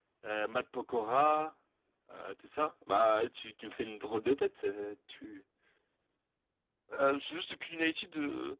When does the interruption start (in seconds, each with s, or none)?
none